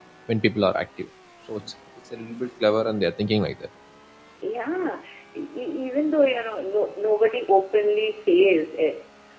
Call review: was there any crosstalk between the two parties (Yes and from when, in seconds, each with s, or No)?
No